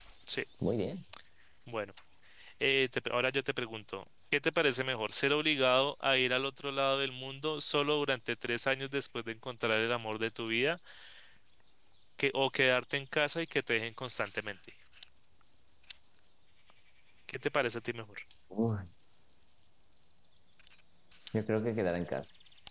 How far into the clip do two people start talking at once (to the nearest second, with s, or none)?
none